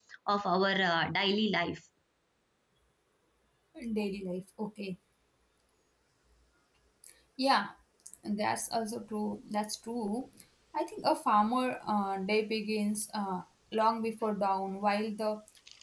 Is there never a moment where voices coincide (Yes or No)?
Yes